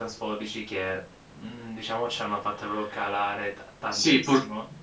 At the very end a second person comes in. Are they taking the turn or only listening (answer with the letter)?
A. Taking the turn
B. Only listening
A